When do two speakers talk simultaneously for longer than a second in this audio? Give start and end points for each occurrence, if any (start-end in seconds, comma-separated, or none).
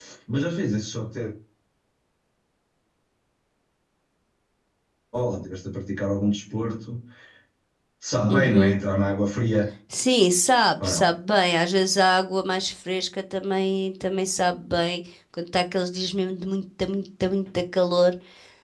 none